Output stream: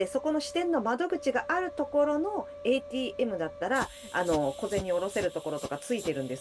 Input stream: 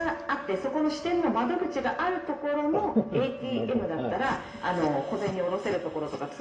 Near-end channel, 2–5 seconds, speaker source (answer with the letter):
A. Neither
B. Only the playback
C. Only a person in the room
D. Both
D